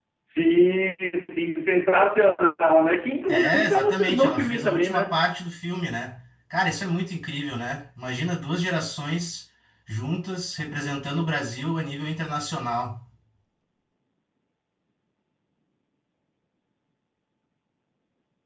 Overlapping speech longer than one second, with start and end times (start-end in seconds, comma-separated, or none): 3.3-5.2